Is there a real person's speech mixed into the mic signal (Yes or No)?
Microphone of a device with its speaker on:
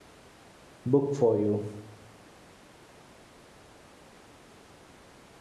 Yes